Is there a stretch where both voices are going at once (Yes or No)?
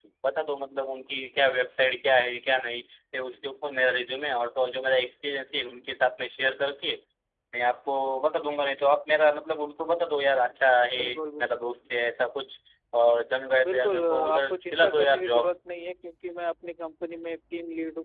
Yes